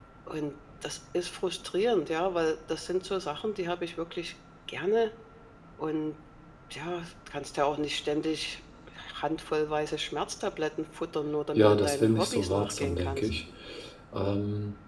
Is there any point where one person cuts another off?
Yes, from 11.6 s

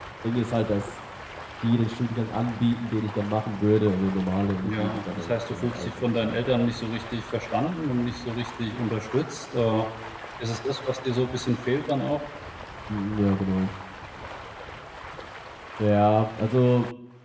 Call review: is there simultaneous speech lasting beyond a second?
Yes, from 4.6 s

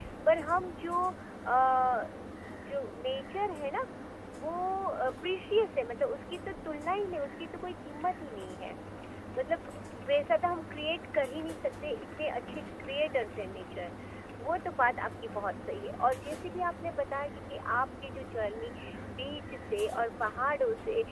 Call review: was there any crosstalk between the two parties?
No

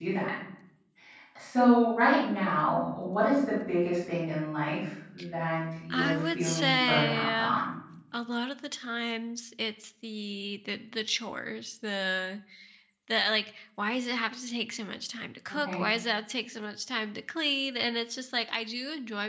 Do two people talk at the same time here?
Yes, from 5.9 s

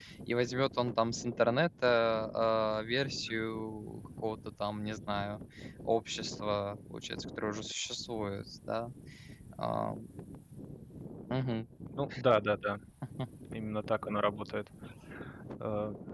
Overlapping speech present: No

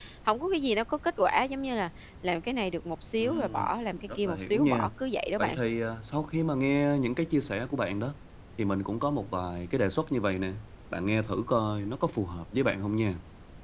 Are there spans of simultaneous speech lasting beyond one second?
Yes, from 3.2 s

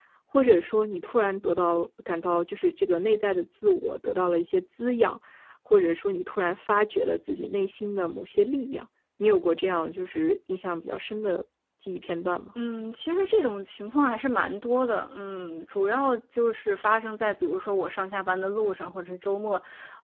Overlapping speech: No

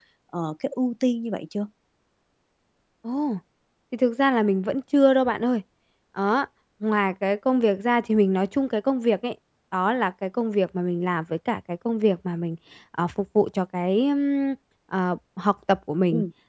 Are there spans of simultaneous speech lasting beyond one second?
No

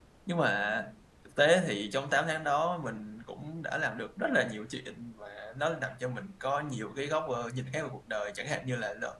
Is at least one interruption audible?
No

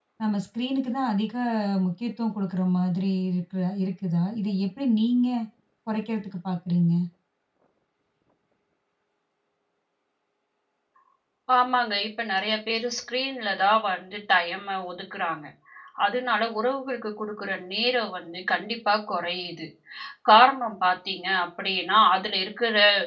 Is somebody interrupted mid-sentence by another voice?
No

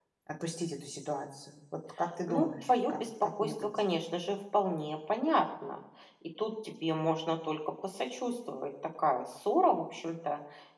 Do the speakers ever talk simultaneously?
Yes, from 2.2 s

